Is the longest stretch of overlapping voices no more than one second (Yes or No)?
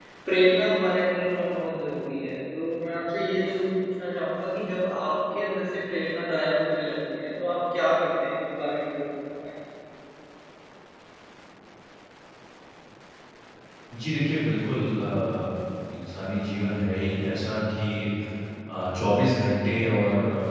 Yes